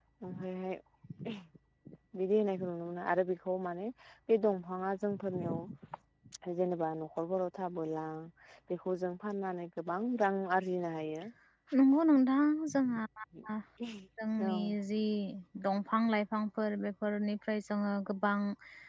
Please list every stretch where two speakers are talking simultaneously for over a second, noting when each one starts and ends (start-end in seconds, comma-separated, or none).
none